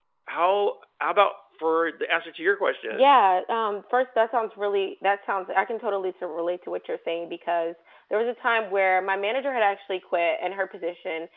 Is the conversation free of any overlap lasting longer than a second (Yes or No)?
Yes